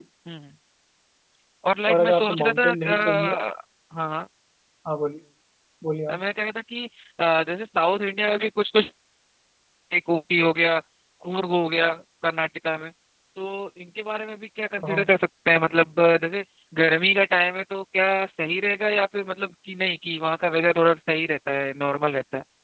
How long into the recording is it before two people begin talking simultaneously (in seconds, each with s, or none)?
1.9 s